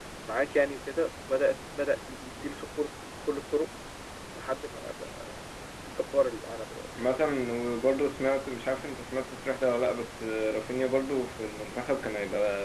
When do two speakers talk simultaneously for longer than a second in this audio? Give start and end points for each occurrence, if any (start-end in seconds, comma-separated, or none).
none